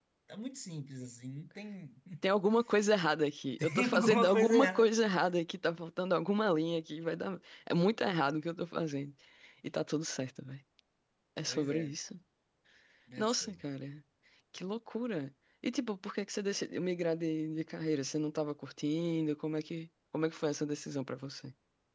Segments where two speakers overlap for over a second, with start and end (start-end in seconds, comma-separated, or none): 3.6-4.9